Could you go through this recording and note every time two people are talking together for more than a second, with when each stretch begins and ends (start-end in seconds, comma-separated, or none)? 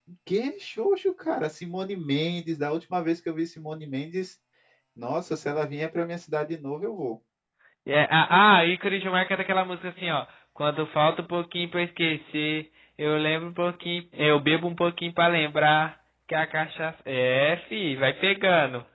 none